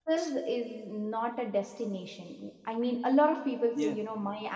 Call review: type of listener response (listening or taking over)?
listening